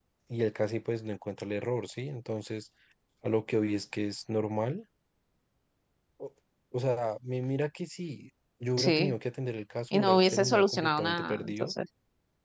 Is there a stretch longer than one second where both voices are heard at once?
Yes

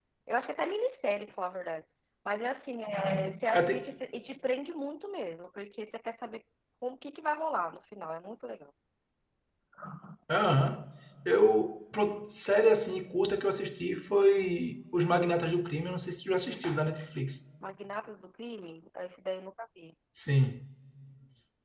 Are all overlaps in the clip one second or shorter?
Yes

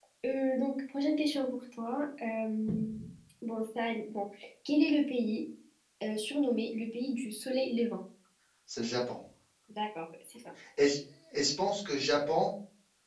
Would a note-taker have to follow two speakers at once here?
No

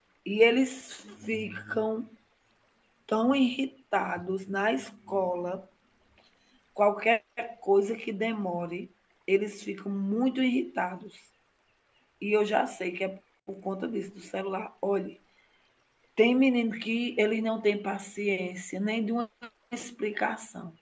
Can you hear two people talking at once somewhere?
No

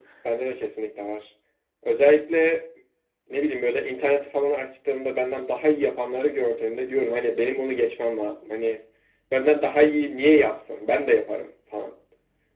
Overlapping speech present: No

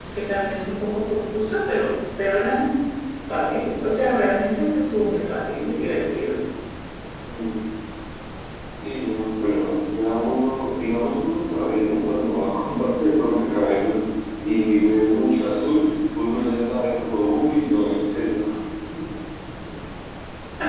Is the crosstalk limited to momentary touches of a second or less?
Yes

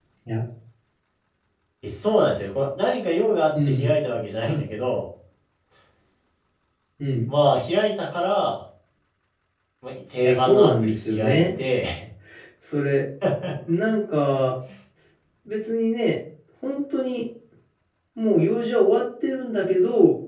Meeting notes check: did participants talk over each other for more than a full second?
Yes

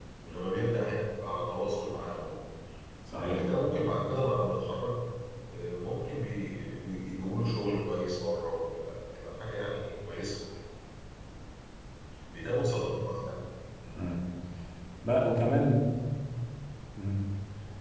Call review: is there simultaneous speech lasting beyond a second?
No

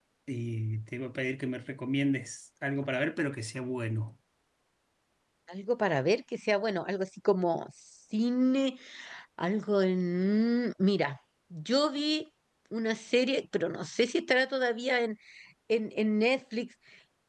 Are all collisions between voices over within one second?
Yes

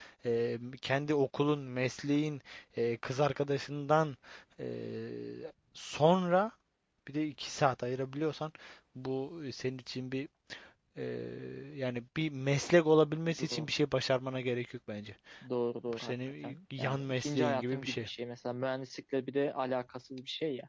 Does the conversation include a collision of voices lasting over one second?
Yes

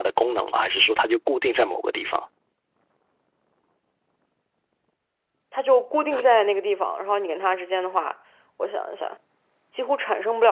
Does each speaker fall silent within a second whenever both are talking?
Yes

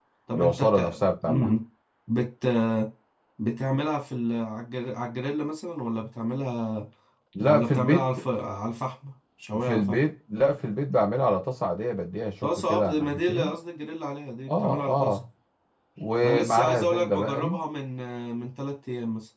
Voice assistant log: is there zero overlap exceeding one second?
No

